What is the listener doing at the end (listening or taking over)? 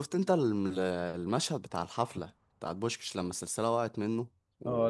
taking over